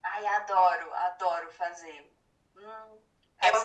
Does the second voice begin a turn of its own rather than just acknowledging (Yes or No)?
Yes